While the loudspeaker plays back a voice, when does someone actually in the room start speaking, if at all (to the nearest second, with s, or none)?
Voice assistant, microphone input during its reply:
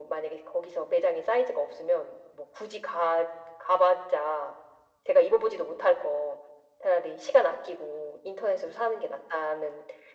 none